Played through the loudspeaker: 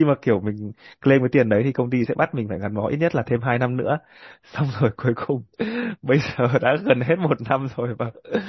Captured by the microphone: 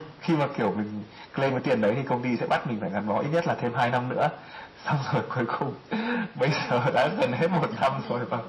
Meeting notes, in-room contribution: present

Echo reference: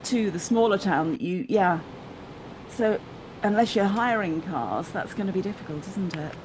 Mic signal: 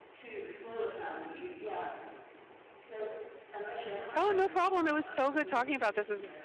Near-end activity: present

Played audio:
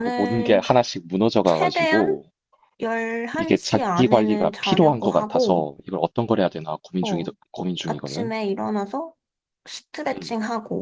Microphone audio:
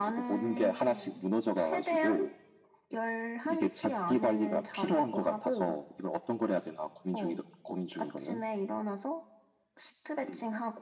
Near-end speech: present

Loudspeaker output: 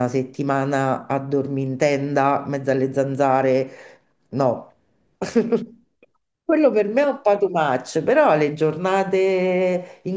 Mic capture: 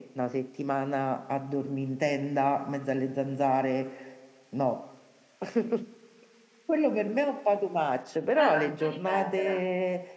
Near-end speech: present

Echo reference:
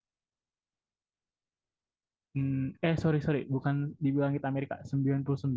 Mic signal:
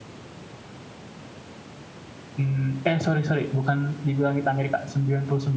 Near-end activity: none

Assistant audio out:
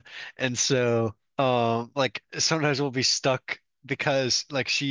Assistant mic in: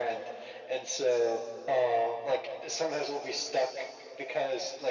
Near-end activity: none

